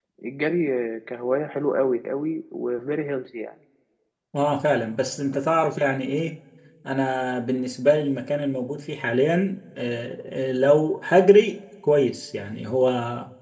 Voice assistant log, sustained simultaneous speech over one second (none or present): none